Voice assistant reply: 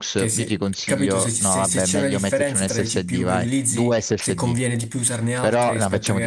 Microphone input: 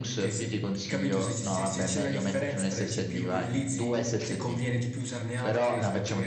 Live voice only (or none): none